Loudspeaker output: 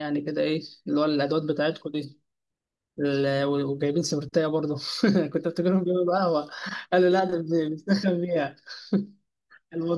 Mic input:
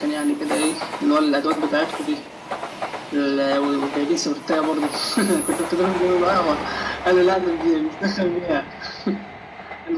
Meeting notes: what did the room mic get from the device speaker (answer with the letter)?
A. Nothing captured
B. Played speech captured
B